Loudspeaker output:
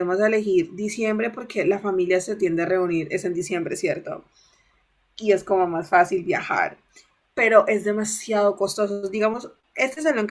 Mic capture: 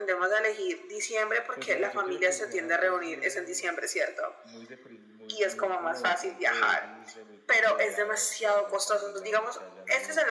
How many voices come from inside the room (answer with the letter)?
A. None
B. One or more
B